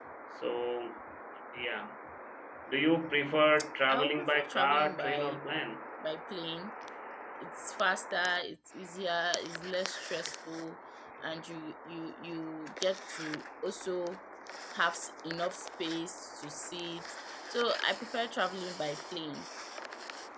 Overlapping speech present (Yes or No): Yes